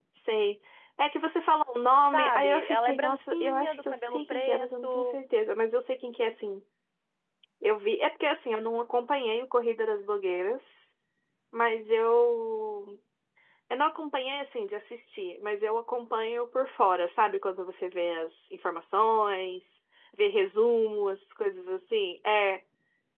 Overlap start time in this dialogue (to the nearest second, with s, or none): 2 s